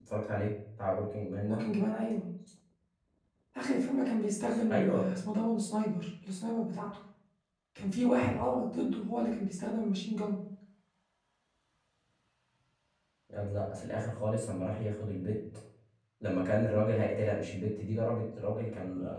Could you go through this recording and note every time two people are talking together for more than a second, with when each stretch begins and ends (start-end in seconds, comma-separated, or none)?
none